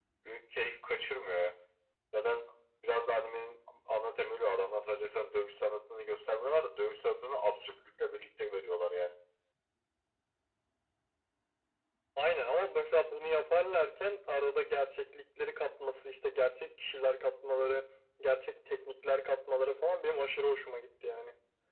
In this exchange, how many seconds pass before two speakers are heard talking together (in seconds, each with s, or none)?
none